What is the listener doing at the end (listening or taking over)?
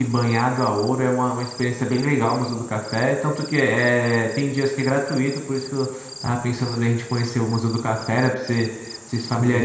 listening